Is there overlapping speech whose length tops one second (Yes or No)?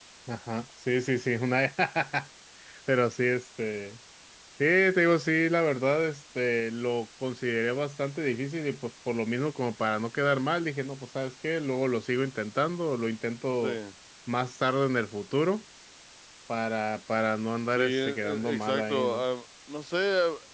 Yes